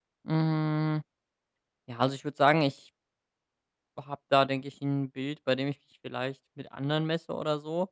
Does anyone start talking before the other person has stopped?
No

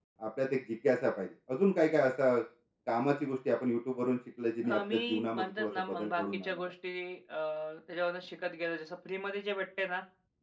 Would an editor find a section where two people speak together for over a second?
Yes, from 4.6 s

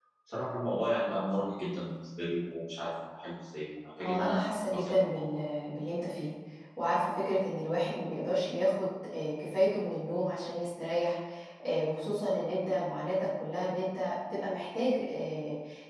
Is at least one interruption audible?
Yes, from 4.0 s

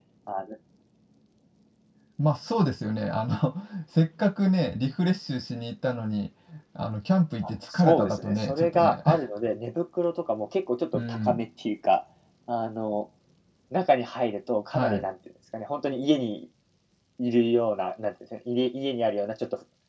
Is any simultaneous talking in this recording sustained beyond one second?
Yes, from 7.7 s

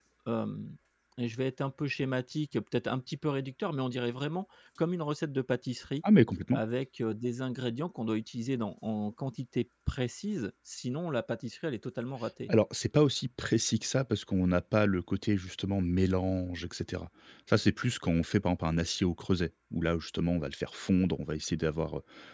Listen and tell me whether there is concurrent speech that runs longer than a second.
No

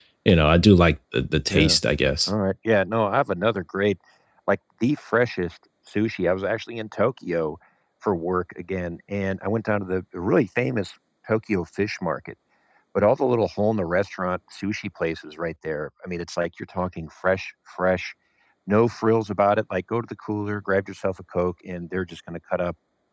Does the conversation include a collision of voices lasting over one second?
No

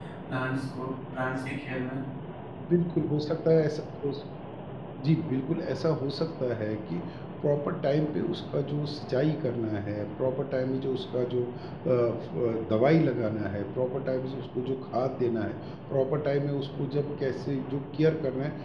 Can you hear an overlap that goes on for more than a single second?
No

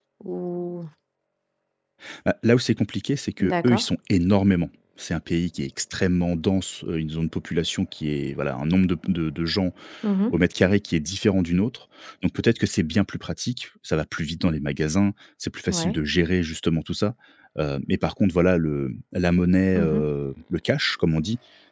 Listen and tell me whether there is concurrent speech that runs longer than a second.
No

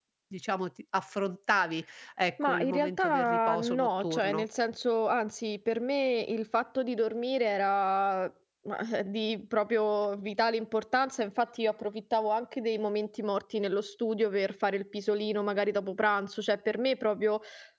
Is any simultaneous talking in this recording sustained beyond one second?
Yes, from 2.4 s

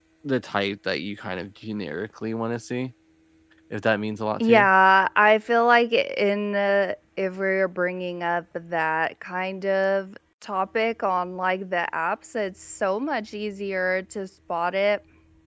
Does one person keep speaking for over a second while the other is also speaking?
No

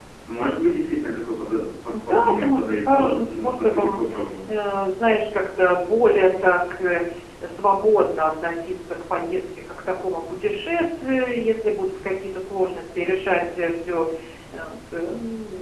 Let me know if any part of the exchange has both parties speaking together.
Yes, from 1.9 s

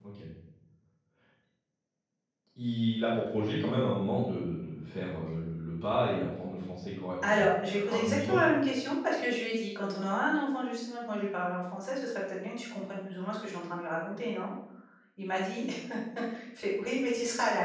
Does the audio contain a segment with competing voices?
Yes, from 7.2 s

